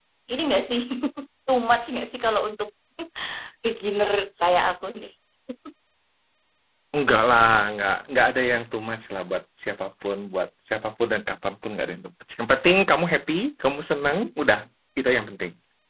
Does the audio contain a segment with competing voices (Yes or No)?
No